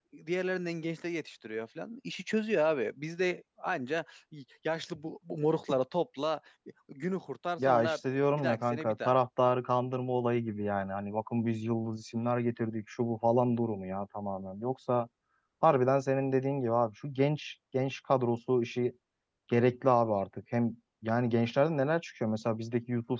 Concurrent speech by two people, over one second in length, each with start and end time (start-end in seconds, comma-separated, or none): 7.6-9.2